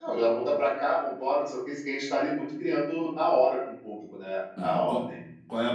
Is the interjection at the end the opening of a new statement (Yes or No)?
Yes